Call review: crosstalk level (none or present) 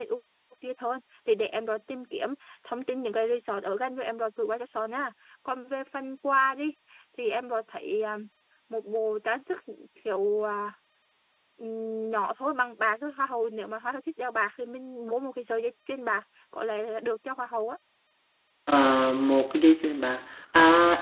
none